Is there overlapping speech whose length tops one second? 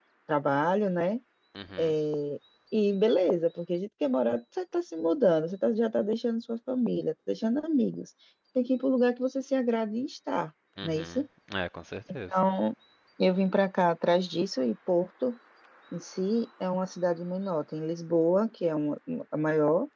No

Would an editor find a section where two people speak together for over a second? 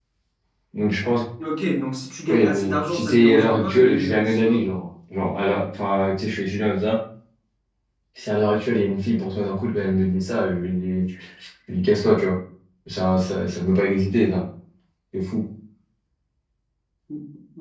Yes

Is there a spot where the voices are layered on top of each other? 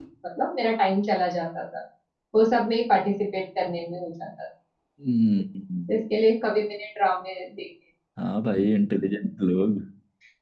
No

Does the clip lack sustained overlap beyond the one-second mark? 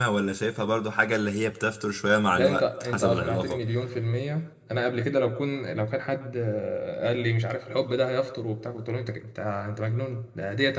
No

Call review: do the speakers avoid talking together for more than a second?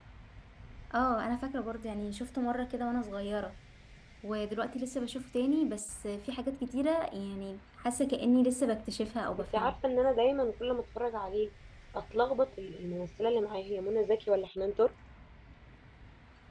Yes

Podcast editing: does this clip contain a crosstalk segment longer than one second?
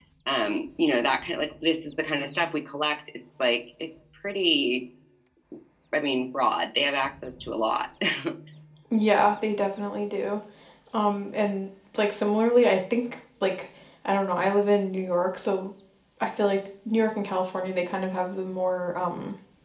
No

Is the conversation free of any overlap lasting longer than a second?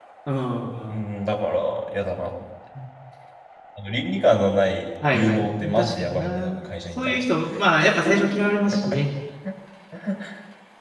No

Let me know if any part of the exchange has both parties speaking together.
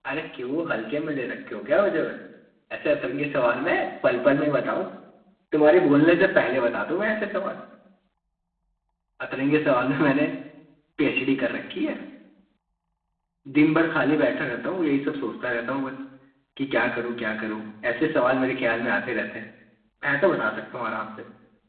No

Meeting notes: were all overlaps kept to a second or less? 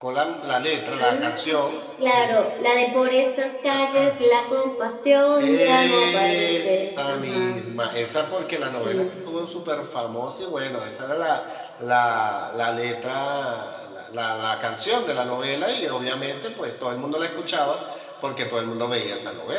No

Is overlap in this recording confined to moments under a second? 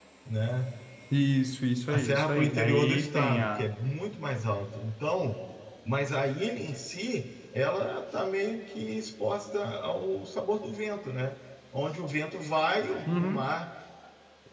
No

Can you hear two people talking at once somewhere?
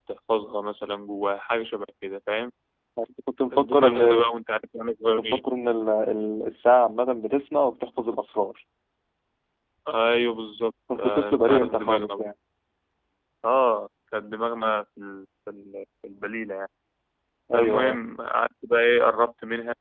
Yes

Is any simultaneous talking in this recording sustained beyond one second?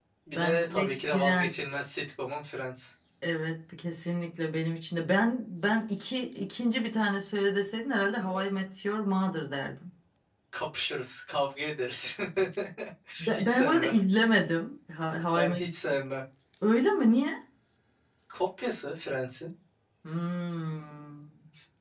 Yes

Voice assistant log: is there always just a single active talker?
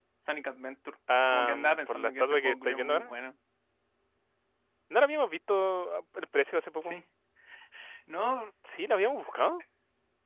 No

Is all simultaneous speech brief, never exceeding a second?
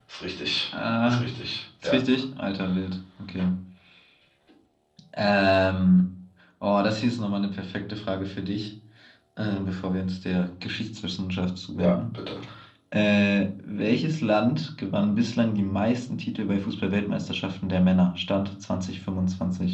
Yes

